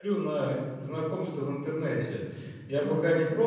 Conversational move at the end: listening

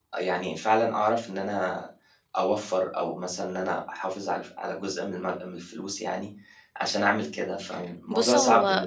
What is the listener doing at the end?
taking over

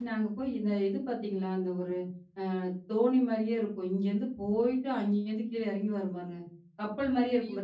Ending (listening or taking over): taking over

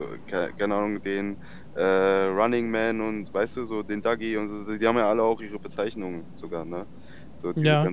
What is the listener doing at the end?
listening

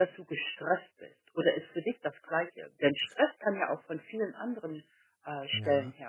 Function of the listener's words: taking over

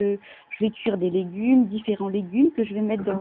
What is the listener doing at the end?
listening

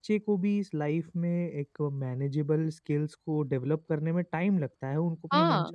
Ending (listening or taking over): listening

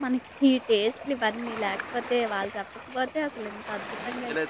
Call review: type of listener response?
taking over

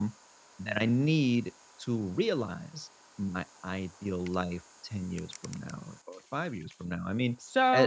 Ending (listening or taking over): taking over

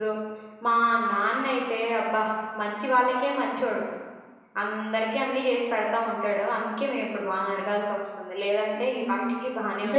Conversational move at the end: taking over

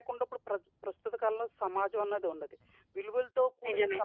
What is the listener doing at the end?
listening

